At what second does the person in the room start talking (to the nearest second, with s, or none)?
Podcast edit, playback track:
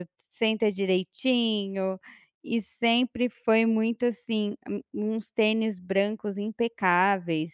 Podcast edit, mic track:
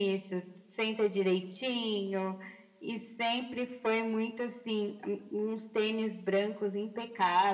none